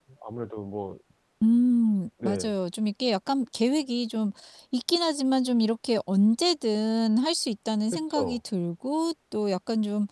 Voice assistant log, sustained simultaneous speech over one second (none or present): none